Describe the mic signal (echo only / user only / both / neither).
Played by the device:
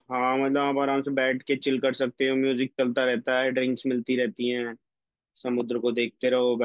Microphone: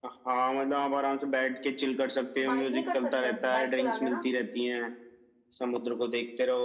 both